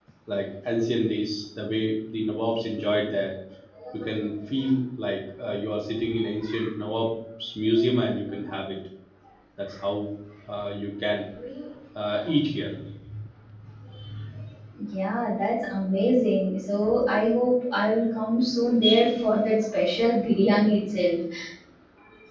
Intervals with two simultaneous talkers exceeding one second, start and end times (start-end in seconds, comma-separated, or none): none